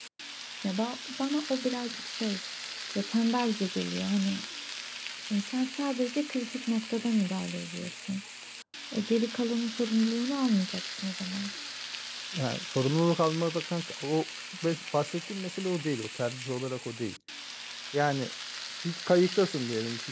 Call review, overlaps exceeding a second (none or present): none